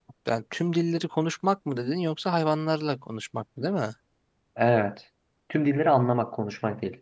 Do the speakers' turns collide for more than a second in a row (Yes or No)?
No